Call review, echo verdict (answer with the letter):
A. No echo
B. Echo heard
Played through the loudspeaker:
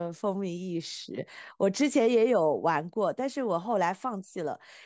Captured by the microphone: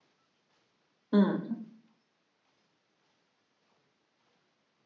A